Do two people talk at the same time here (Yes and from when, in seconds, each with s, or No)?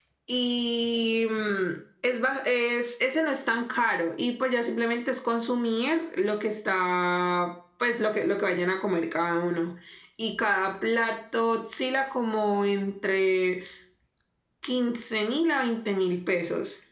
No